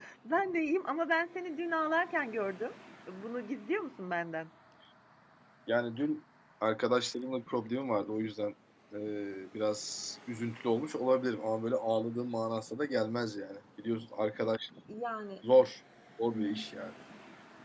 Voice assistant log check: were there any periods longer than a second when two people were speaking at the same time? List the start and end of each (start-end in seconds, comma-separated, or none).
none